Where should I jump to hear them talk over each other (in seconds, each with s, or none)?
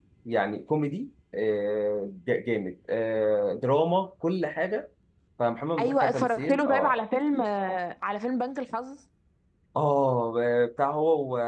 5.8 s